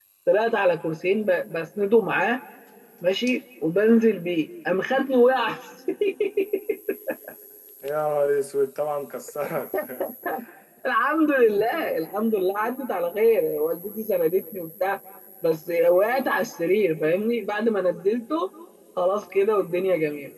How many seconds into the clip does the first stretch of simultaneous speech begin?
none

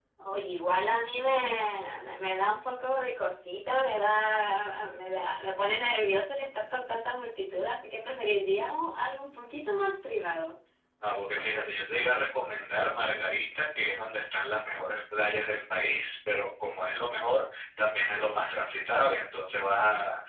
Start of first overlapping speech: none

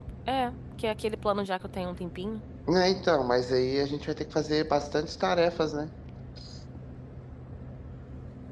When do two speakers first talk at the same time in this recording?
none

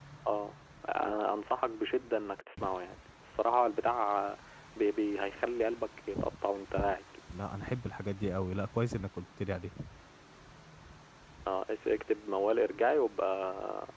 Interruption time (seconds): none

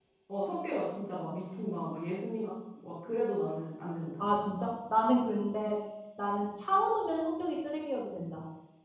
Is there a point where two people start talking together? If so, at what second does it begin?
none

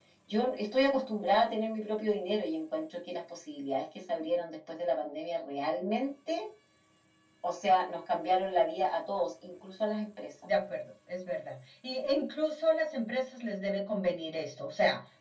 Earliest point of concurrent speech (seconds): none

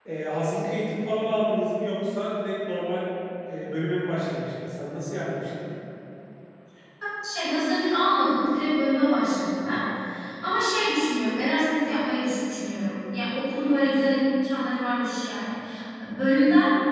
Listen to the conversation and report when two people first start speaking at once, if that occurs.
none

